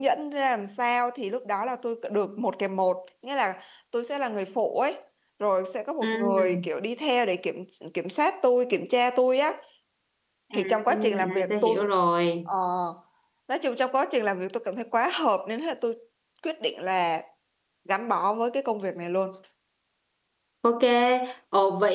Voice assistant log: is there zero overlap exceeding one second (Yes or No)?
No